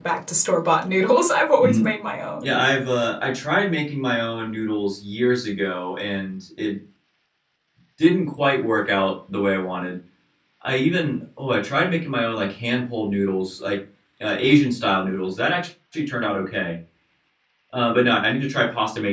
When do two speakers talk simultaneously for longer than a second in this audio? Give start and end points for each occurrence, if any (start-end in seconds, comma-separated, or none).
none